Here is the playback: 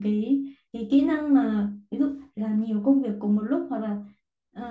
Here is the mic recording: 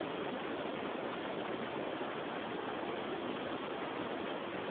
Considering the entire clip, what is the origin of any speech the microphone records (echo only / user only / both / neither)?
neither